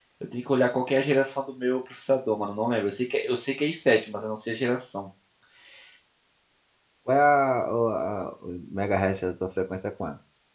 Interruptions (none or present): none